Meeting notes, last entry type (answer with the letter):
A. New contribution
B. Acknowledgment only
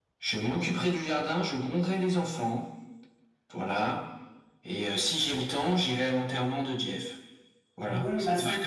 A